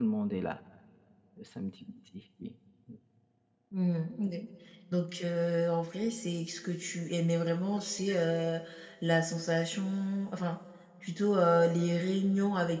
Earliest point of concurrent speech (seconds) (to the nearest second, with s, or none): none